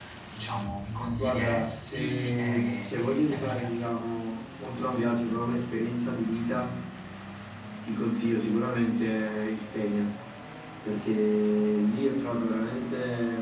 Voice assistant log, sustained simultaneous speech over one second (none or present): present